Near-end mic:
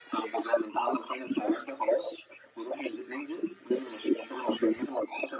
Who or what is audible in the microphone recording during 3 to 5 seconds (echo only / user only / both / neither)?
echo only